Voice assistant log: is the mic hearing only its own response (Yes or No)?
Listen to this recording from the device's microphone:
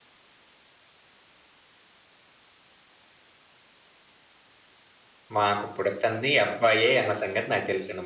No